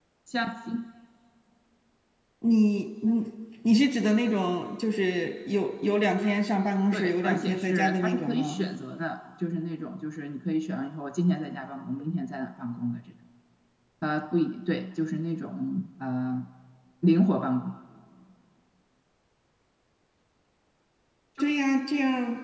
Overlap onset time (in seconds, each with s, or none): 6.9 s